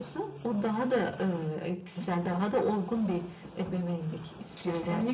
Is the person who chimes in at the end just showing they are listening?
No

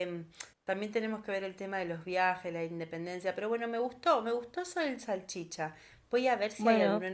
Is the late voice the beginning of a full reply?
No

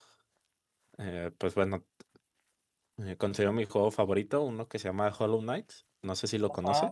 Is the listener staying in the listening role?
No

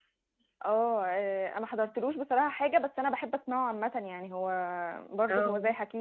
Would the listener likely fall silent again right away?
Yes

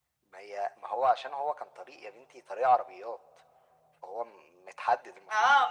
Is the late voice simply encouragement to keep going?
No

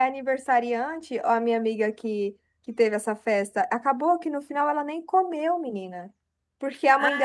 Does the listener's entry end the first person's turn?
No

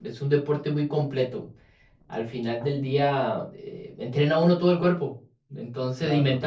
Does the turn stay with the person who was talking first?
Yes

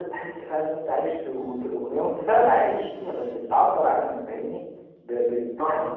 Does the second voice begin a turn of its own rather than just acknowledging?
No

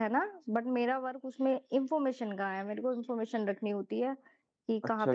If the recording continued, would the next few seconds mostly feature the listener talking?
Yes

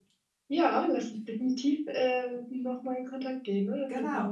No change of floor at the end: No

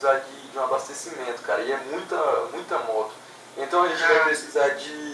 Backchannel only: Yes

